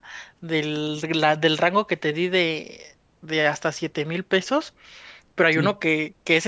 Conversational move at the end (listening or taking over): listening